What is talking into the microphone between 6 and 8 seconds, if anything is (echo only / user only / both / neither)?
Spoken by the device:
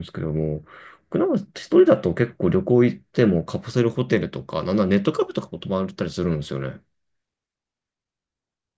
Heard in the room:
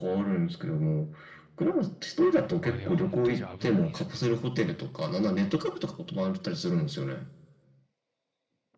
echo only